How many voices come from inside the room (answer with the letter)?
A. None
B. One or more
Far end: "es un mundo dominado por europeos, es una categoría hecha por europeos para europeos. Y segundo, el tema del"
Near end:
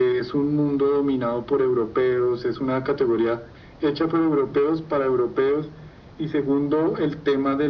A